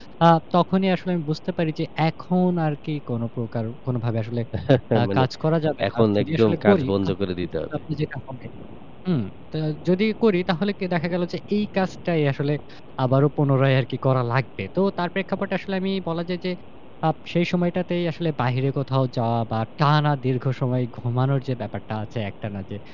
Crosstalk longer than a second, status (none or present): present